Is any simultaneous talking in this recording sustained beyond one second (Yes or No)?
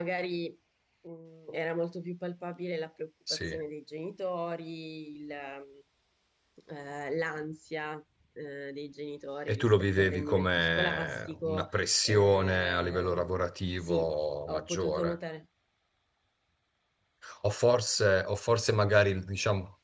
Yes